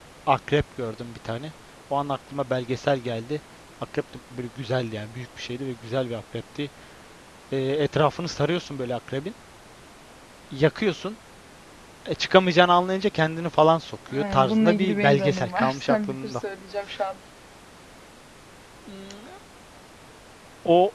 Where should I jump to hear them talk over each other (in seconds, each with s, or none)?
14.1 s